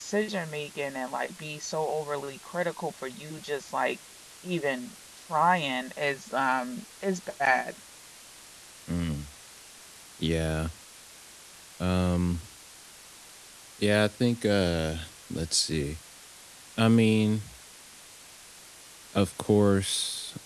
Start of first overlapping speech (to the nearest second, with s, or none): none